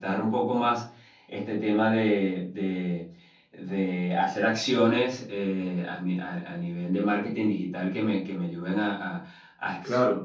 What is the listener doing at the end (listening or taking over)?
listening